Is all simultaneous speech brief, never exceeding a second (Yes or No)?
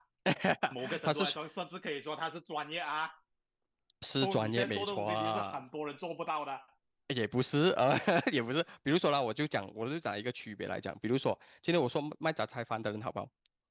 No